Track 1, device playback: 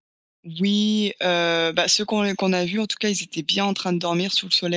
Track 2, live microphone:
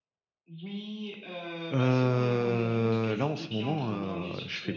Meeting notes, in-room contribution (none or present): present